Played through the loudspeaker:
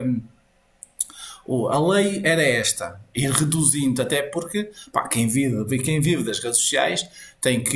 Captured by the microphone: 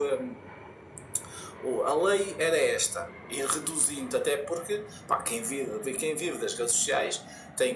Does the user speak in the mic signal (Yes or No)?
No